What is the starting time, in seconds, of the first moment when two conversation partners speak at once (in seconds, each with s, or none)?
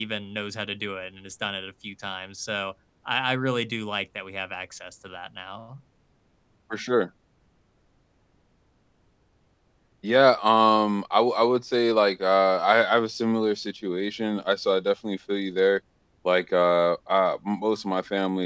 none